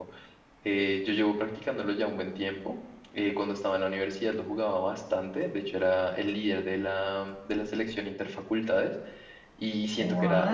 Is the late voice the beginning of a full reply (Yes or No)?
No